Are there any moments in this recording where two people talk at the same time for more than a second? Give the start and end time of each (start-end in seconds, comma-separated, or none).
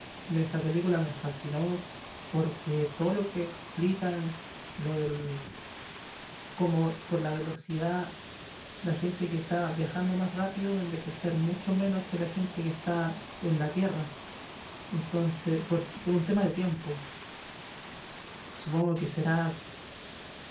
none